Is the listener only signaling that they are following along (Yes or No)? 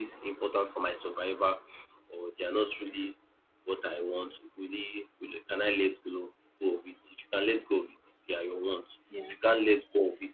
Yes